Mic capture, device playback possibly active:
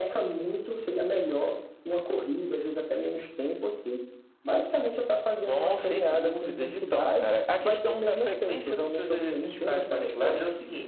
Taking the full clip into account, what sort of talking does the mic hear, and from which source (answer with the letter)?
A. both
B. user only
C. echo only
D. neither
C